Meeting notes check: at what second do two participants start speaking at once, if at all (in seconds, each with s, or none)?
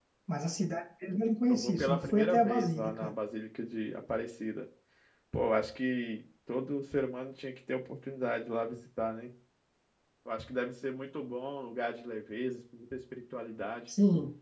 1.5 s